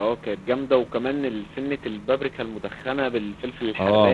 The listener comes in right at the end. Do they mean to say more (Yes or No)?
Yes